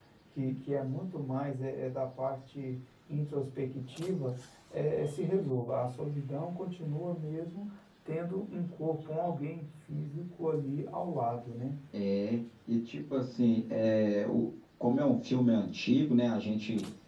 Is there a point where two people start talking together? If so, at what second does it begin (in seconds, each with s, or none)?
none